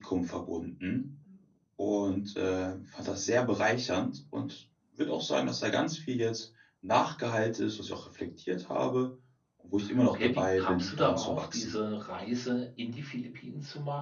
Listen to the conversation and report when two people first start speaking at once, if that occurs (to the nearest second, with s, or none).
10 s